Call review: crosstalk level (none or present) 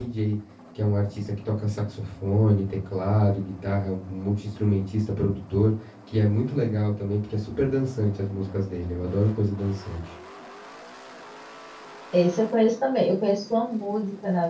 none